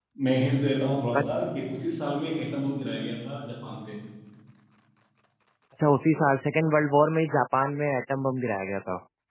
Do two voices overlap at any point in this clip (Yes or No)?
No